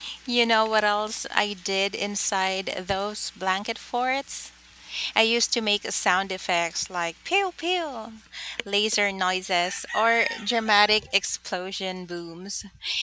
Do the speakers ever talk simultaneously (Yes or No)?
No